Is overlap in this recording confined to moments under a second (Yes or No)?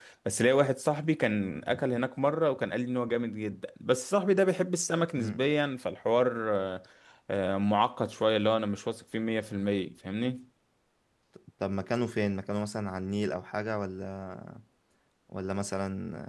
Yes